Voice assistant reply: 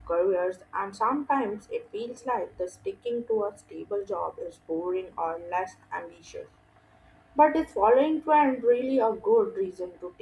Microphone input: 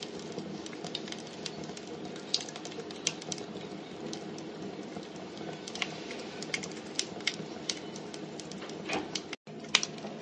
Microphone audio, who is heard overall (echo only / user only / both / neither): neither